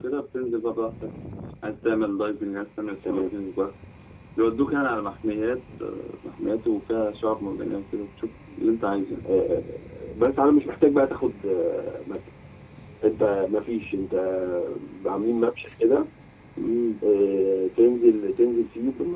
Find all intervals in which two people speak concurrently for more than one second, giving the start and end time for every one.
none

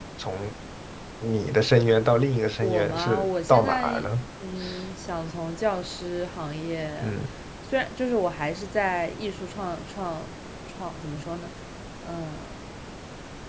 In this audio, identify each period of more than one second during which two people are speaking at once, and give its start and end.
2.6-3.9

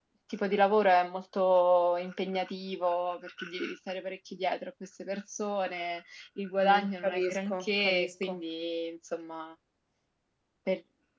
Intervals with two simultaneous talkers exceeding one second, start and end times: 6.6-8.4

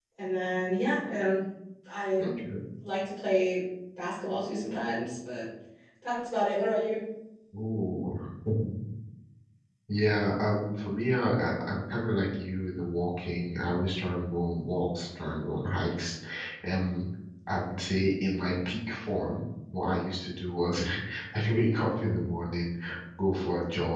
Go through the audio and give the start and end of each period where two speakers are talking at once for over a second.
none

